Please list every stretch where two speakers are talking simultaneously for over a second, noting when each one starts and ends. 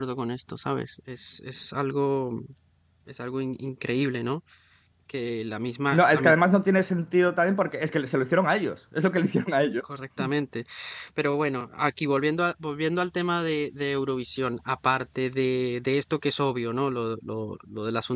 none

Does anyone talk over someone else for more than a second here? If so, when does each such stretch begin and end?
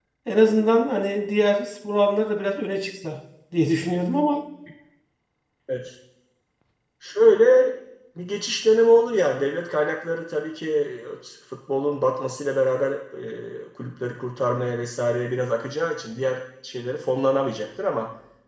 none

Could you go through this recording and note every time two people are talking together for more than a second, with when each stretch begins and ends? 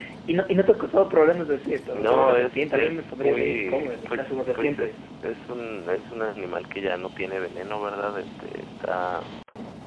1.9-5.0

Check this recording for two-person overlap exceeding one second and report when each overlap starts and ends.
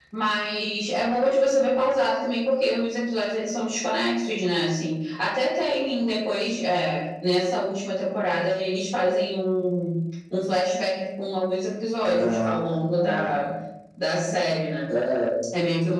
12.0-13.4

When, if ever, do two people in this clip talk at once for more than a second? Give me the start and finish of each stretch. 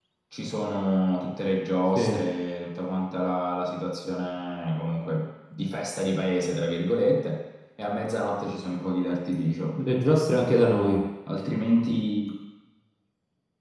none

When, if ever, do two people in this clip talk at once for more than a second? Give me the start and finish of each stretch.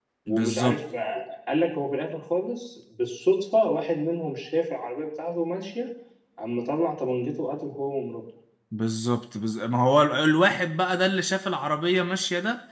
none

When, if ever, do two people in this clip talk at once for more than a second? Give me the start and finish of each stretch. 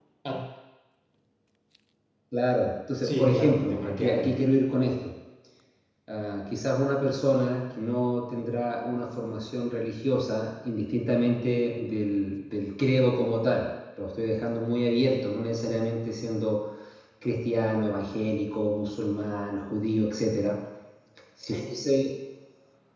3.0-4.4

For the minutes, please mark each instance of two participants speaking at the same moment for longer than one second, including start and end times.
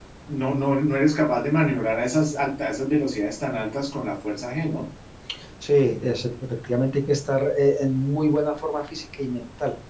none

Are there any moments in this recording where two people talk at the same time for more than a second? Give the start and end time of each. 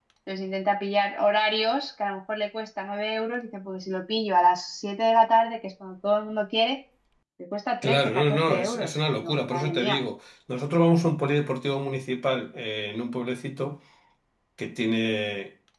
7.8-10.0

